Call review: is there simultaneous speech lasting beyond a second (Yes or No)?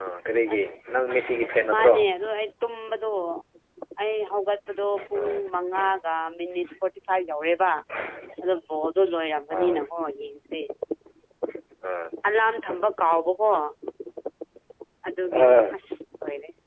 No